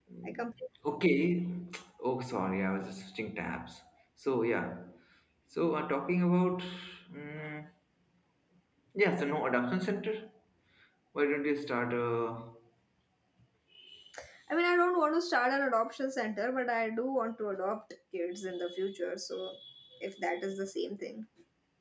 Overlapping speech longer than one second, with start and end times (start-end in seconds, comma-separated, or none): none